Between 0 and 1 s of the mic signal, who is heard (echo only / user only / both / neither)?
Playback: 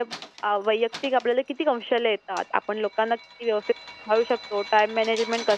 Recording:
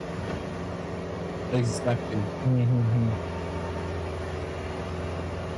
neither